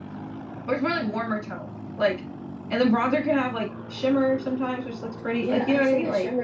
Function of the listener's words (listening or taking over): taking over